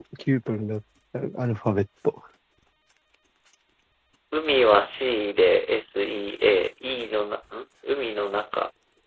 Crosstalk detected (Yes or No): No